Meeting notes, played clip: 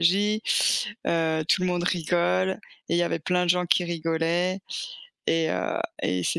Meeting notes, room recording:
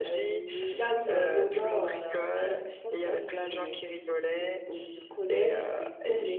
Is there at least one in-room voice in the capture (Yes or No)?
Yes